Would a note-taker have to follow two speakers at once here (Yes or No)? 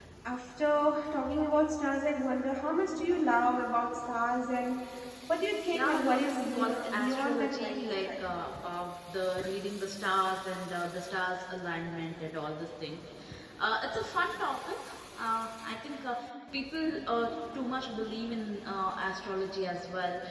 Yes